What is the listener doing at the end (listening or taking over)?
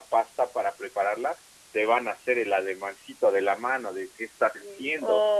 taking over